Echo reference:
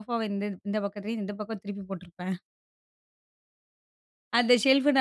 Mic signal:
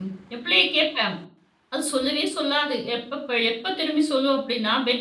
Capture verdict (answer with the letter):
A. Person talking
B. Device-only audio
A